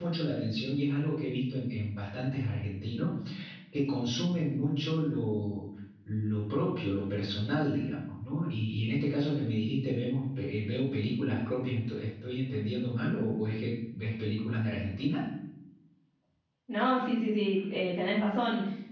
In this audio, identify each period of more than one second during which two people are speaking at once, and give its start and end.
none

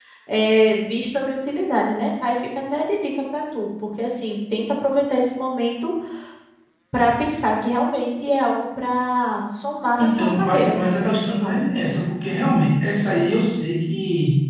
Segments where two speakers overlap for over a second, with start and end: 10.0-11.6

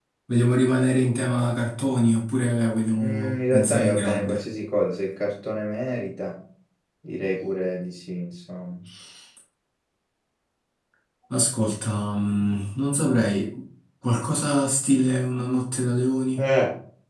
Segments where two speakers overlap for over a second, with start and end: 3.0-4.4

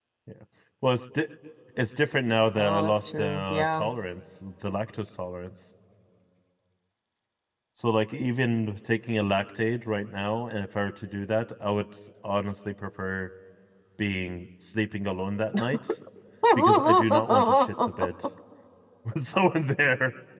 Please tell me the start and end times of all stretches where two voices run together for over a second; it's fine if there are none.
2.5-3.8, 16.6-18.1

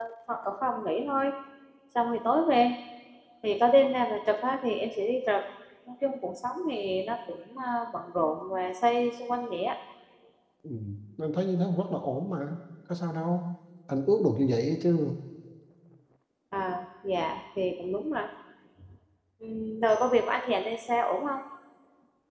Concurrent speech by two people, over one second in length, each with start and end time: none

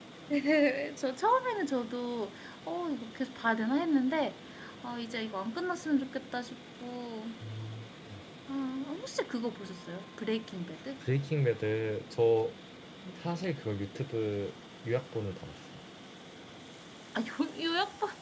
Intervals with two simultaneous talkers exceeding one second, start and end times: none

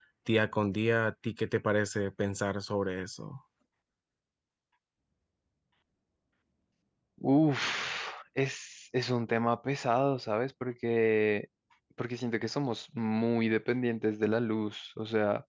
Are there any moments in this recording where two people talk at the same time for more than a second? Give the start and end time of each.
none

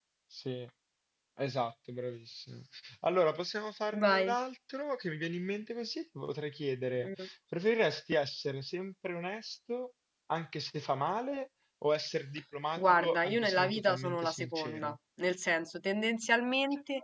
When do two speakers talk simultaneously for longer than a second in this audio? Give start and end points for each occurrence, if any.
12.8-14.9

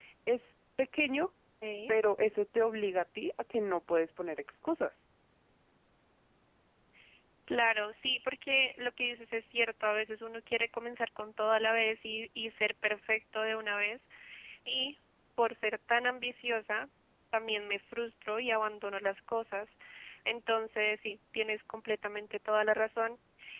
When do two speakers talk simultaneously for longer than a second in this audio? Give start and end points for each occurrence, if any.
none

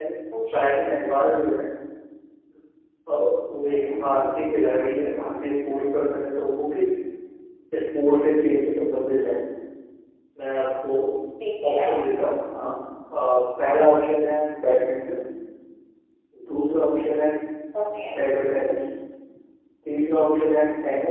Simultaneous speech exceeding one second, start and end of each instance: none

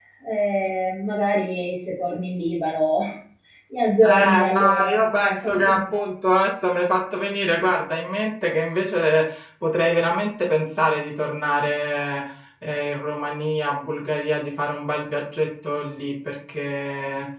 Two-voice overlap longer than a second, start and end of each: 4.0-6.0

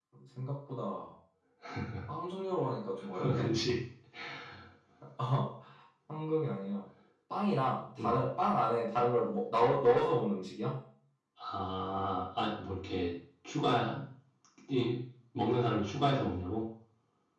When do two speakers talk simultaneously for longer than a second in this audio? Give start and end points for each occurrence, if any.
none

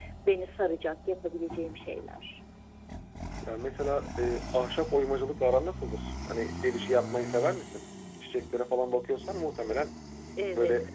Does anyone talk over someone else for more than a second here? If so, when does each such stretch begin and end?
none

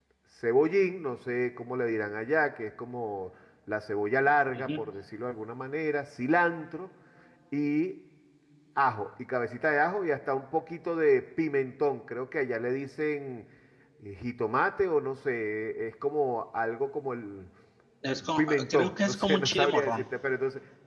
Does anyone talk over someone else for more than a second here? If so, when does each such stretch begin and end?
18.4-20.1

